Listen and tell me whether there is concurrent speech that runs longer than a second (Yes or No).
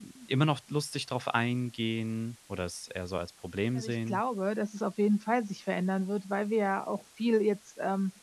No